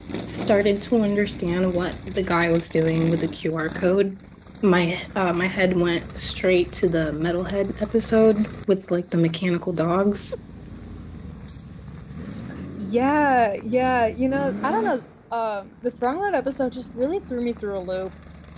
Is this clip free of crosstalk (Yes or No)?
Yes